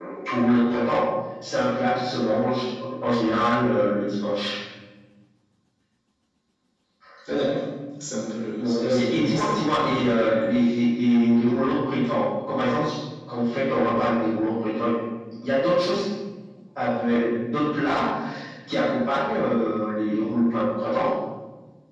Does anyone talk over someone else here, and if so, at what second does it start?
8.6 s

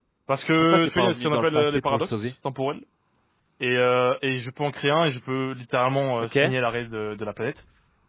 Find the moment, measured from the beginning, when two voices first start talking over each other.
0.7 s

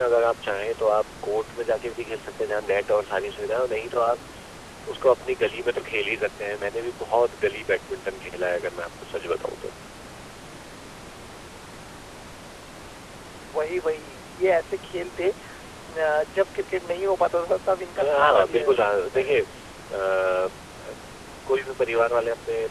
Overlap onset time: 18.0 s

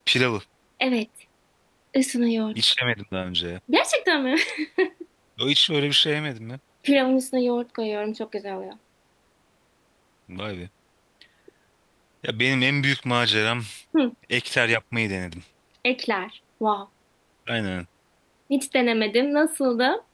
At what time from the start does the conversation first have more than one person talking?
none

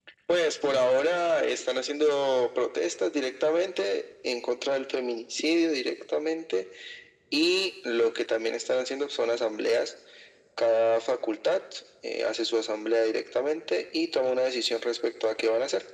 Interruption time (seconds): none

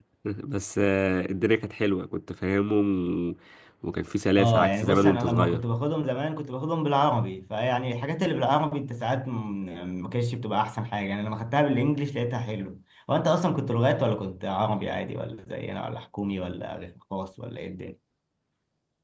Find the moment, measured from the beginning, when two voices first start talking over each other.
4.4 s

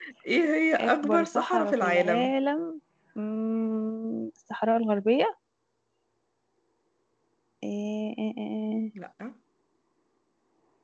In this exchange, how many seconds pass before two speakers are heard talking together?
0.8 s

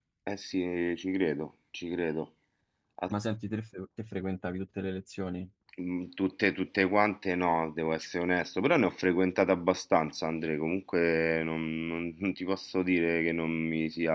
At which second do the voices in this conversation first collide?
none

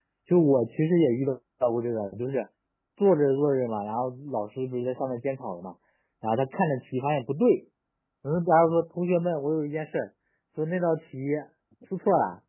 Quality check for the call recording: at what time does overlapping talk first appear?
none

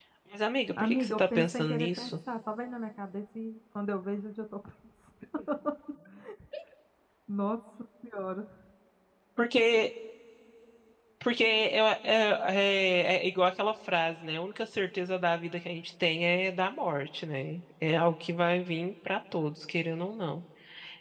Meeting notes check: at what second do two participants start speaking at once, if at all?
0.8 s

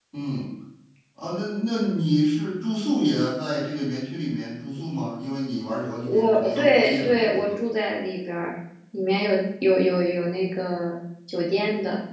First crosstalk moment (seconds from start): 5.8 s

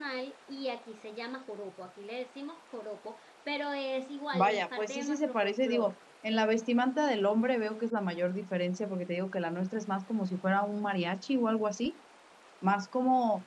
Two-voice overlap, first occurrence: 4.3 s

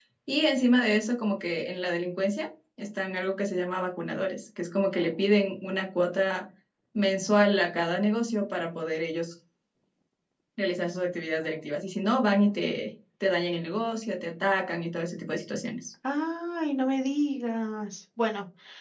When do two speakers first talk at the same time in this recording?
none

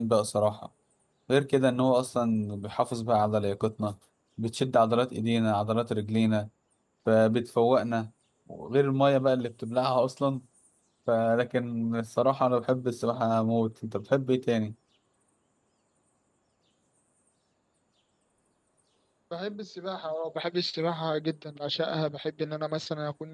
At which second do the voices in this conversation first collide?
none

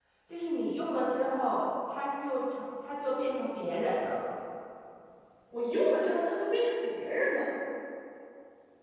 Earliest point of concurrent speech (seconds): none

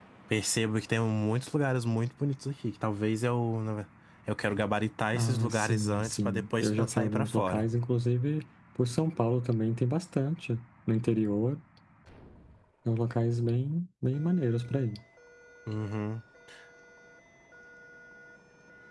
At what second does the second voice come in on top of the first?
5.1 s

